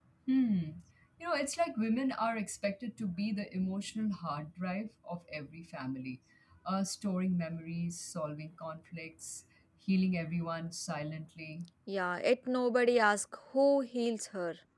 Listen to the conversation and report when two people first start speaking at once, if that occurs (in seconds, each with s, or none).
none